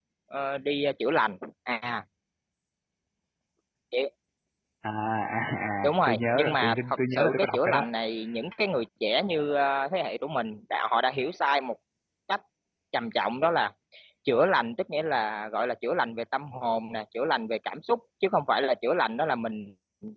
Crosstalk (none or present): present